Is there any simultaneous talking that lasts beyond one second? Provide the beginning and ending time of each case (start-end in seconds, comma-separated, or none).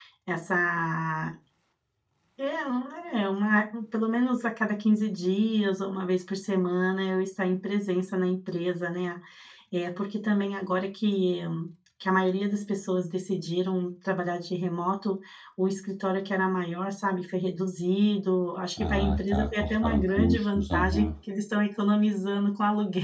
18.8-21.1